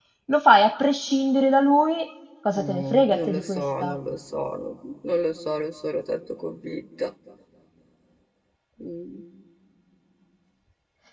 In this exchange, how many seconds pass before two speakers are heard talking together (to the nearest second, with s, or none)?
3 s